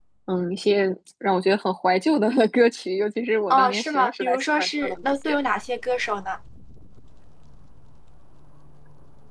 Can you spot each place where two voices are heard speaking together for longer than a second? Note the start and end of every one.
3.5-5.4

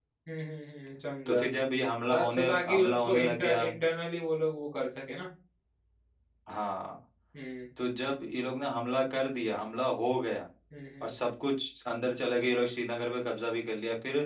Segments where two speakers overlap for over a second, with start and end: 2.1-3.7

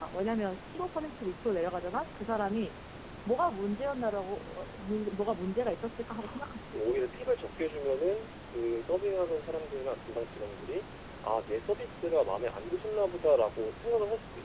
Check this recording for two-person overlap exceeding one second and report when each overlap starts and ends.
none

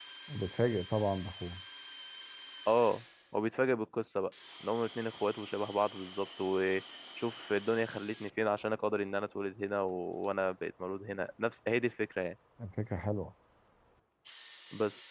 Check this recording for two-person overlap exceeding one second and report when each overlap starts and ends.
none

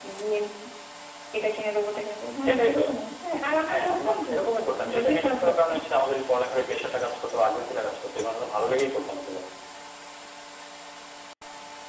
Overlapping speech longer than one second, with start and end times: 3.7-5.7

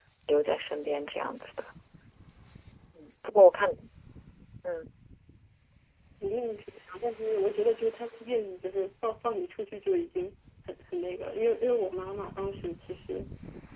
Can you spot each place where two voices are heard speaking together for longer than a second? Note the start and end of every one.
none

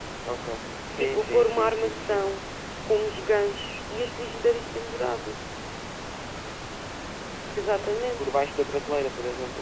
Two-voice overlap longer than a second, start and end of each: 1.0-2.2

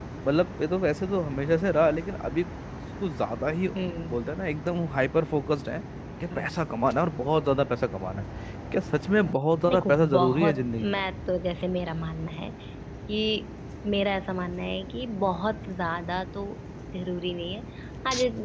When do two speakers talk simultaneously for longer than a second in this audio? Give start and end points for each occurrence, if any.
9.7-11.0

